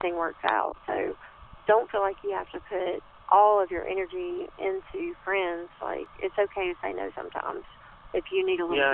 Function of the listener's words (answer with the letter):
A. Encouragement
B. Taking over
B